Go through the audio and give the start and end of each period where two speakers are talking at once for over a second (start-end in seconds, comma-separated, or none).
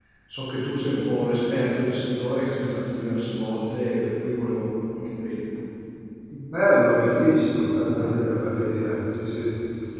none